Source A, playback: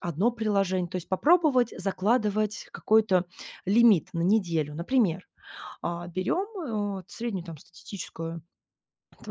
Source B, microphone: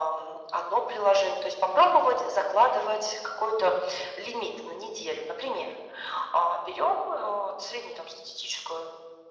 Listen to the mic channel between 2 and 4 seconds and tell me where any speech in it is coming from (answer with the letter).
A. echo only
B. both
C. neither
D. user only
A